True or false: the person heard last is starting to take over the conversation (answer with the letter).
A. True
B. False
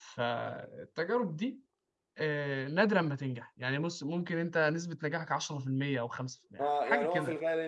A